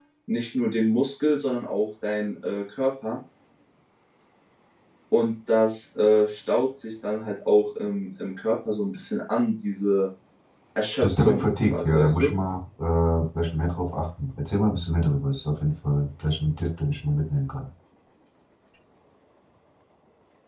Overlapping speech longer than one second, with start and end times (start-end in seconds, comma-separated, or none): 11.0-12.3